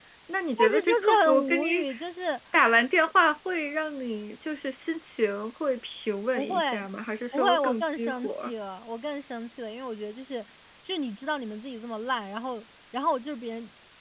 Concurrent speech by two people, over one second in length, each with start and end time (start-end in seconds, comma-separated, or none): 0.6-1.9, 7.3-8.5